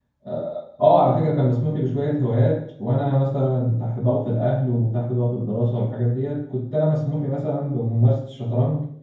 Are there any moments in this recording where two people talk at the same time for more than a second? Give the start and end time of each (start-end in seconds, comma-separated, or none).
none